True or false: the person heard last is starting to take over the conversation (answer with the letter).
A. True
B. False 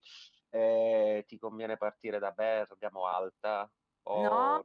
A